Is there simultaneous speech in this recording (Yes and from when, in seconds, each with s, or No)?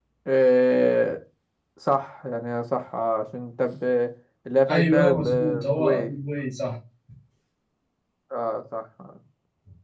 Yes, from 4.7 s